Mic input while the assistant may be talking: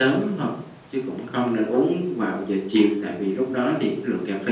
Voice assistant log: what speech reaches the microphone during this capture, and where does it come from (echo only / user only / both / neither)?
echo only